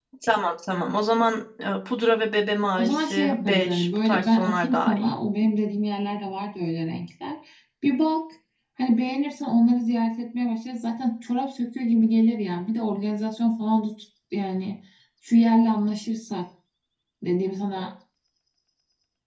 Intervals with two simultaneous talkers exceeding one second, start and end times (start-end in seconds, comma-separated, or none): 2.8-5.1